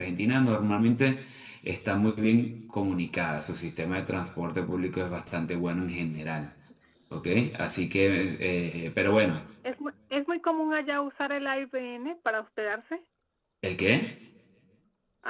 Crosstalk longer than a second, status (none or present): none